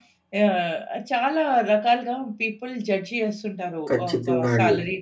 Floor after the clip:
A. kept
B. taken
A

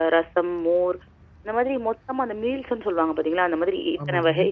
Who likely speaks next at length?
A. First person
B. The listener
A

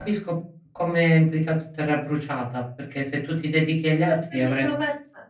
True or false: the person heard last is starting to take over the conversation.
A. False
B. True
B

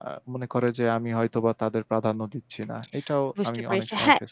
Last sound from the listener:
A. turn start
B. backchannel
A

